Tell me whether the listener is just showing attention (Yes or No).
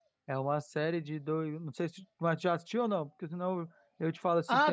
No